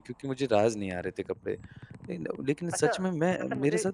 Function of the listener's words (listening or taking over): taking over